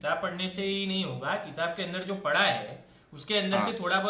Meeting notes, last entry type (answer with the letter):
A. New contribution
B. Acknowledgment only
B